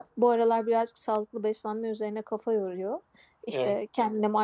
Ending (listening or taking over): listening